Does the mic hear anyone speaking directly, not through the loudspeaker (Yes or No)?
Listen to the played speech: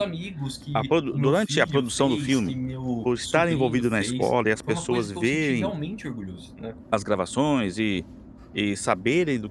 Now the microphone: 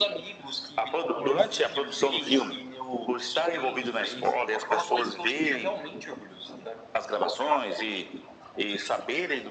No